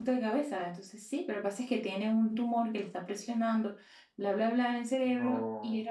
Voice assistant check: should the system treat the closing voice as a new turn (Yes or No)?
No